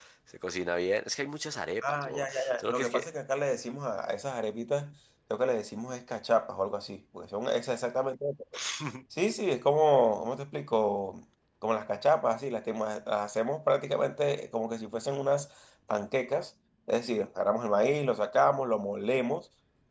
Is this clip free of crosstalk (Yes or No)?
No